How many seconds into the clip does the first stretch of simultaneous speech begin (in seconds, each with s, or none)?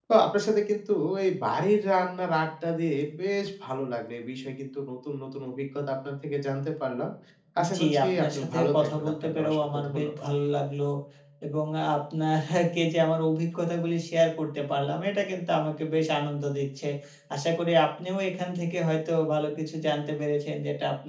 7.8 s